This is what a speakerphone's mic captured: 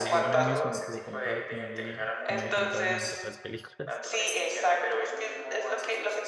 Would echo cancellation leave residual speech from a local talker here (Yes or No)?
Yes